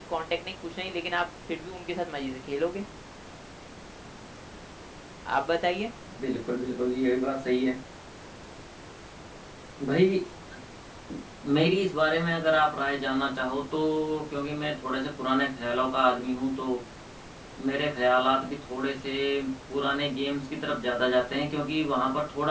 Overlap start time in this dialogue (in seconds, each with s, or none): none